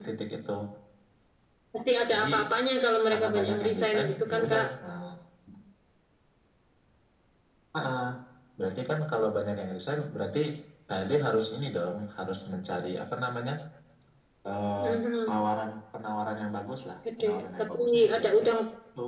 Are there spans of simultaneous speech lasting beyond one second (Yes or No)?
Yes